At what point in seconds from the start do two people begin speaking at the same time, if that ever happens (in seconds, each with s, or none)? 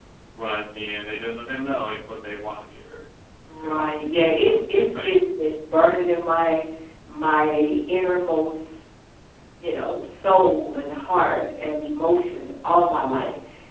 3.6 s